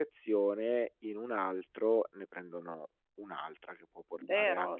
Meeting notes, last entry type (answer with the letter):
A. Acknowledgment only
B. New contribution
B